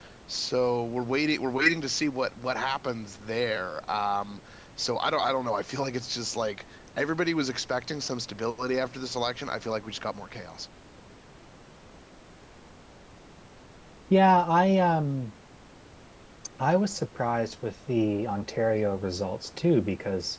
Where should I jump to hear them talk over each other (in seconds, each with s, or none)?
none